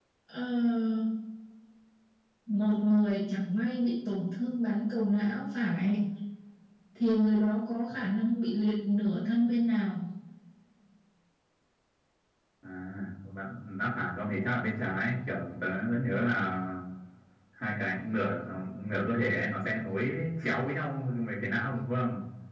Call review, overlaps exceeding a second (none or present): none